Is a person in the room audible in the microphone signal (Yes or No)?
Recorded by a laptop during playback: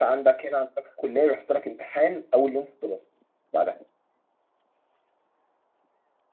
Yes